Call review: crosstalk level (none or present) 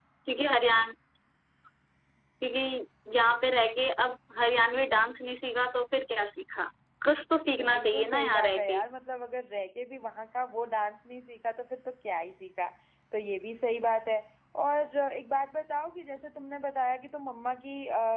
present